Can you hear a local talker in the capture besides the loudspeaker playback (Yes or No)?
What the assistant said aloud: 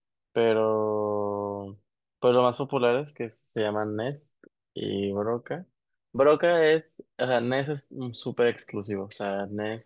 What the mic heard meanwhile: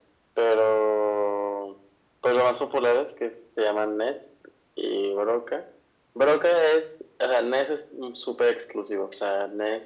No